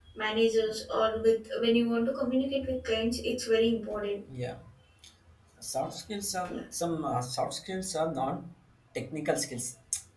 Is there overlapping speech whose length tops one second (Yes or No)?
No